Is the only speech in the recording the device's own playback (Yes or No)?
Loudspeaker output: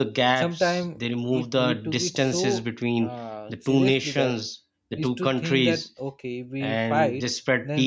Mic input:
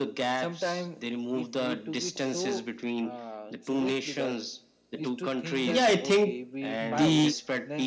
No